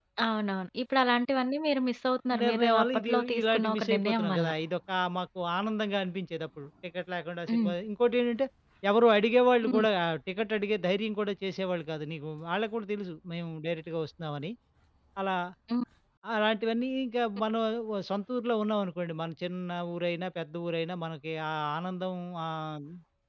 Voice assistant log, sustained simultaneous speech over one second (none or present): present